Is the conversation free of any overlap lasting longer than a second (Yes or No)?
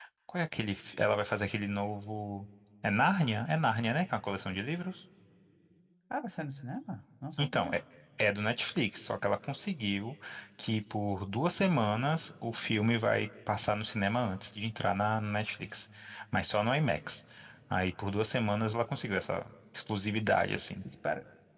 Yes